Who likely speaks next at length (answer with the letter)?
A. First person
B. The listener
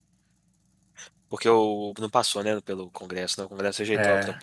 B